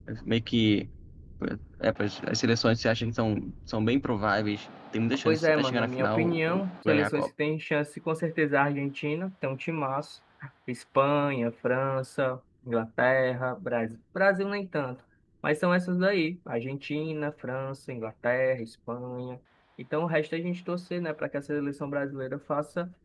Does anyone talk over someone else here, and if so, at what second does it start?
5 s

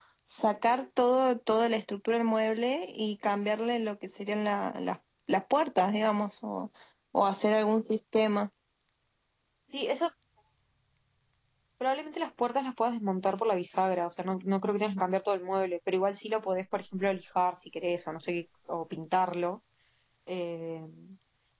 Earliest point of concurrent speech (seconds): none

